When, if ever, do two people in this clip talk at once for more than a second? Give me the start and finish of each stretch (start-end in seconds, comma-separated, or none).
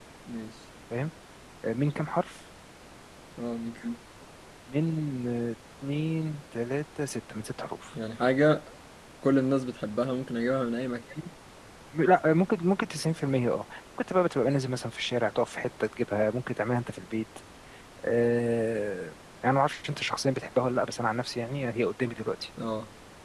none